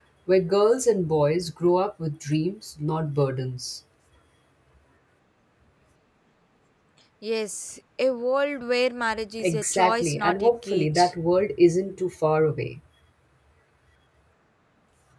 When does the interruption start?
9 s

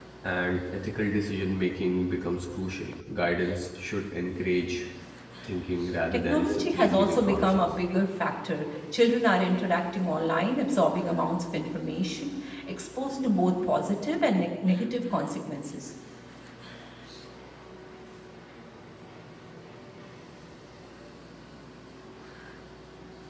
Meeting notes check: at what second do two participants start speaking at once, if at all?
6 s

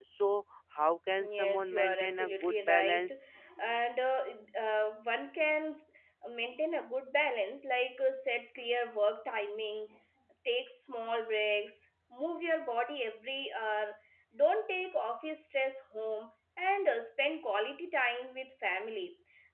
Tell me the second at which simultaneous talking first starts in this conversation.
1 s

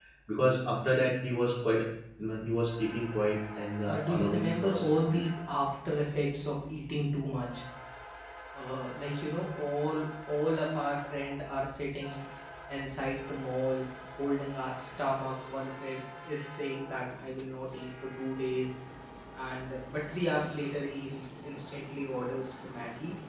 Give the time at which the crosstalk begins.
4 s

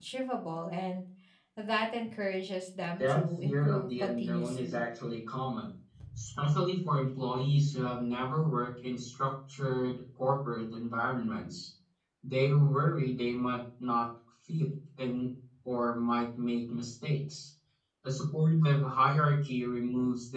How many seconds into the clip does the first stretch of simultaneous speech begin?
3 s

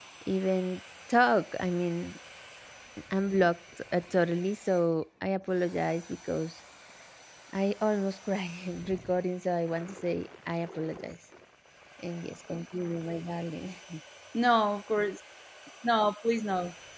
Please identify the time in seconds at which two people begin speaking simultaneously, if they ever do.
none

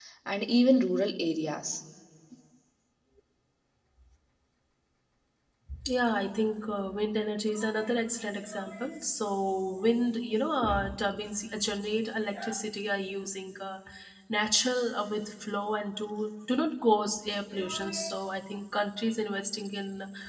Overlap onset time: none

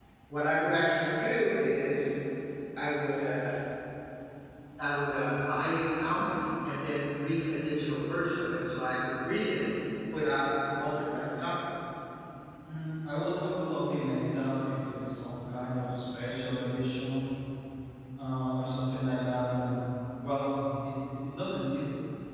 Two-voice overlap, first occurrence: none

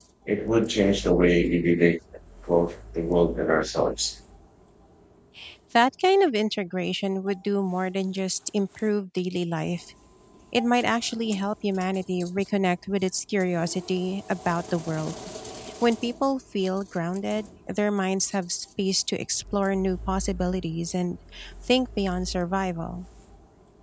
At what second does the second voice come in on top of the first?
none

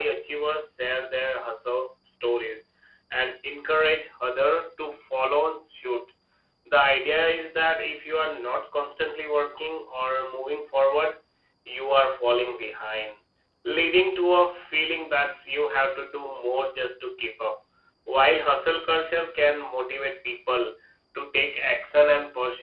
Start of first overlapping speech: none

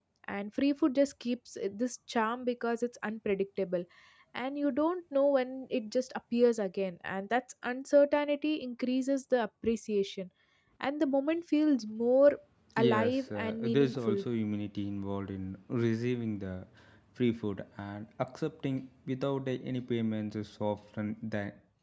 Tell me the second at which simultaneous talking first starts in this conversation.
13 s

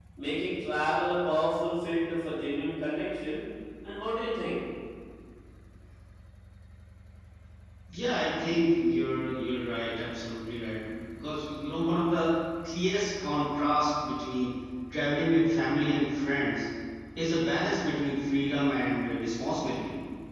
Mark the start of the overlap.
none

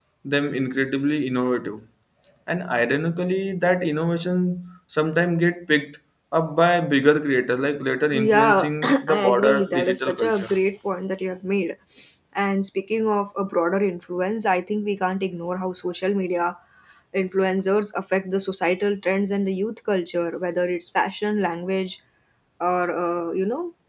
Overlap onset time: 8 s

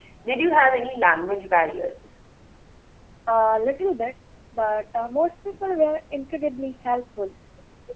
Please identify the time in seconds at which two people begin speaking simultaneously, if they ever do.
none

